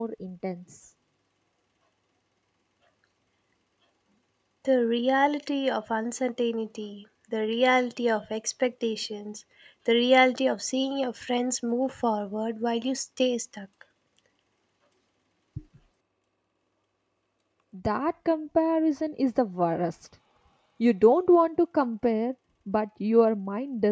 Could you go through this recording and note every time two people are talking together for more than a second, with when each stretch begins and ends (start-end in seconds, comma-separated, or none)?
none